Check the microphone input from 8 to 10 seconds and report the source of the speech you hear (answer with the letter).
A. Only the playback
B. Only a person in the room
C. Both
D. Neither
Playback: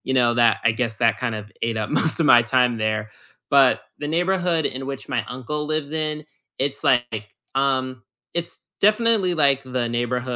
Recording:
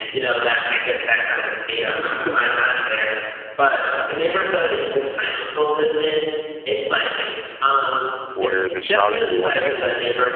C